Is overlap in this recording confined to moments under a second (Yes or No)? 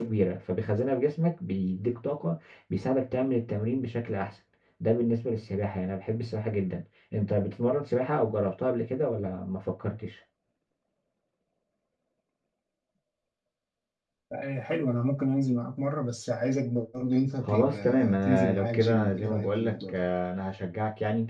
No